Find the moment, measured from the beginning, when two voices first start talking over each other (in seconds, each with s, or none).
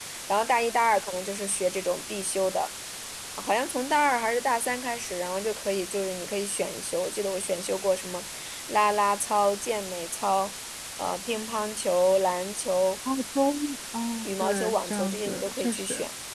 14.2 s